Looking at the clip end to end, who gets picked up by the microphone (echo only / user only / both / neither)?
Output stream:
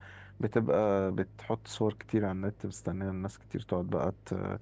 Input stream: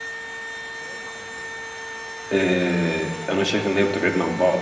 user only